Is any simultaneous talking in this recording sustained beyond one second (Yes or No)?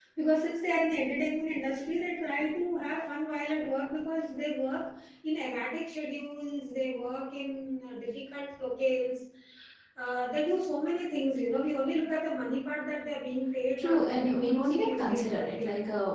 Yes